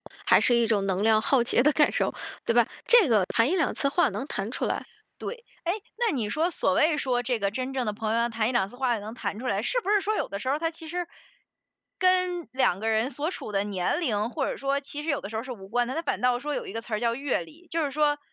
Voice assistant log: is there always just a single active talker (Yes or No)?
Yes